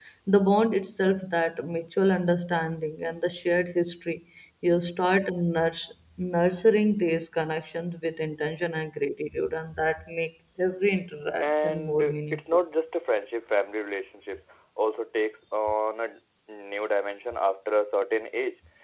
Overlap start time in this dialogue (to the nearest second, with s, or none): 11 s